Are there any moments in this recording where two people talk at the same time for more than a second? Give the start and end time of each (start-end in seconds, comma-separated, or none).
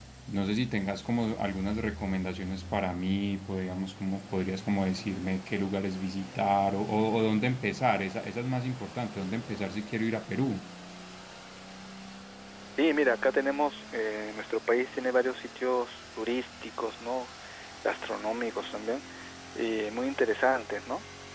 none